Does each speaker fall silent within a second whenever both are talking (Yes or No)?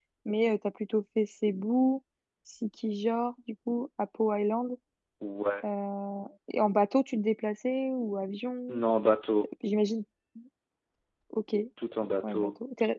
Yes